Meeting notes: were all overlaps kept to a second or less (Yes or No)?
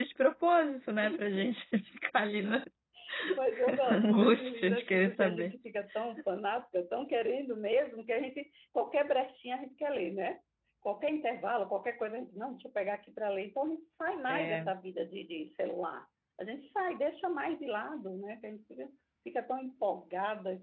No